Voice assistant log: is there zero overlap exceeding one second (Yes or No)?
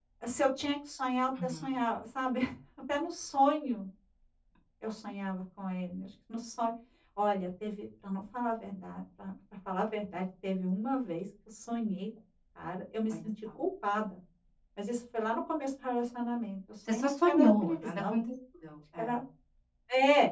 No